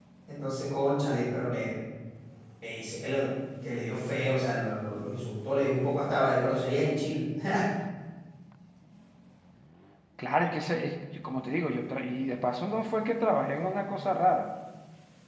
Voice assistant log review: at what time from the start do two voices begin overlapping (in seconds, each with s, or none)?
none